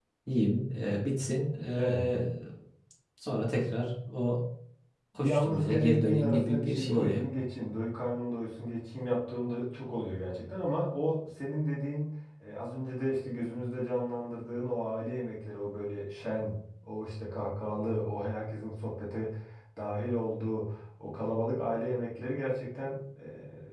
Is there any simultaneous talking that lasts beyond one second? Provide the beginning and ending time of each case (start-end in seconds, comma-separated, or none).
5.2-7.2